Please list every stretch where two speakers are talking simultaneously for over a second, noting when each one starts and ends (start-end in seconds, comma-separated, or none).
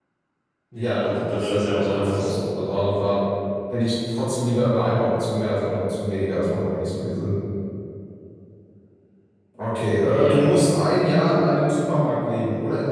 0.7-2.3